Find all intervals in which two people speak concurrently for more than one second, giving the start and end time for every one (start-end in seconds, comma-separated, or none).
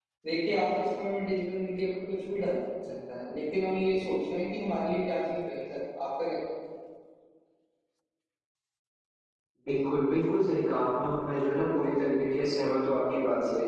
none